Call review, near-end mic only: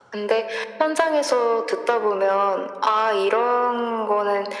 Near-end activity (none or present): none